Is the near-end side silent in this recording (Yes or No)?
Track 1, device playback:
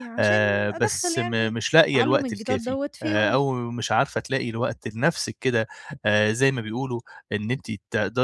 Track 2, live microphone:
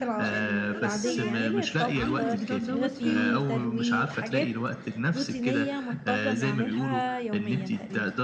No